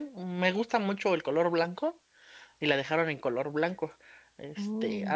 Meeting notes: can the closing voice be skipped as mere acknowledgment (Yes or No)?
Yes